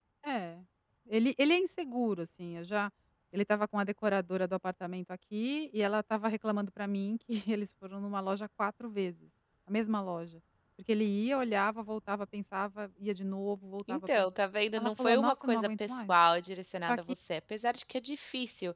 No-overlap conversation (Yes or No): No